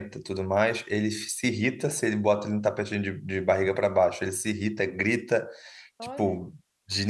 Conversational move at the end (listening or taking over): listening